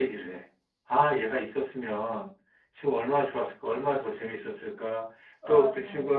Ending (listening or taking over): listening